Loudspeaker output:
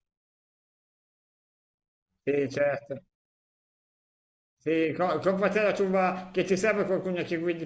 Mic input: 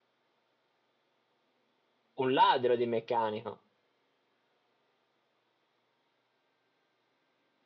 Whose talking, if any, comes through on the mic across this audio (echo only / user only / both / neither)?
user only